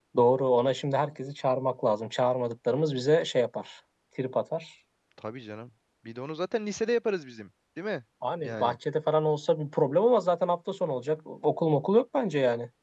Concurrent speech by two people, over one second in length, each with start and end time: none

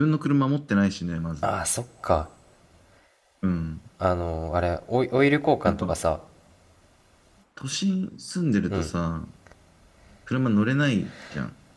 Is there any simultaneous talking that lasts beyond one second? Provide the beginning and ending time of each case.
none

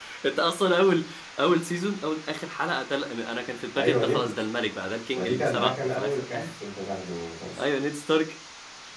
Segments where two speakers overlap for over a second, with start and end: 5.2-6.5

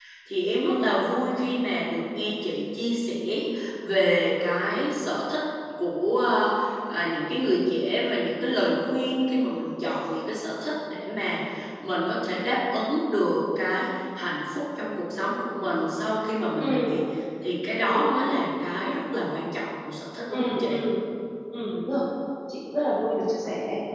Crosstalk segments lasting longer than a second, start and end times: none

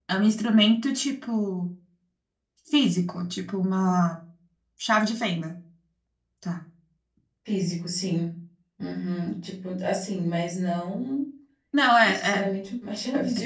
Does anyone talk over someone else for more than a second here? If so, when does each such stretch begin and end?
none

